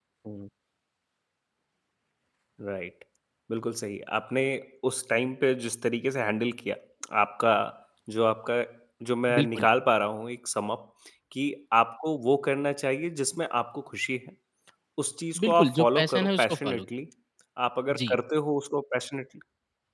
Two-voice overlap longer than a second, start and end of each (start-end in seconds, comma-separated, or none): 15.4-16.9